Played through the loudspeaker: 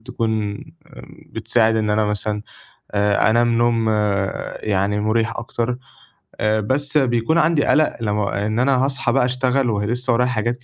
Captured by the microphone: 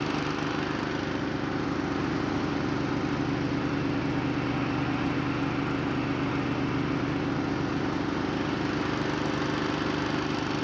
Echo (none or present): none